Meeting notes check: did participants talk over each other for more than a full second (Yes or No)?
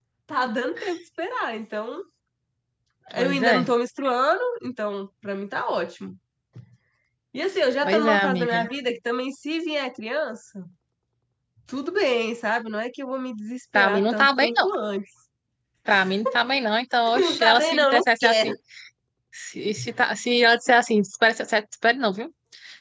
Yes